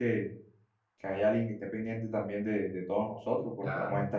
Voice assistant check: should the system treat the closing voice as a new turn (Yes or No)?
No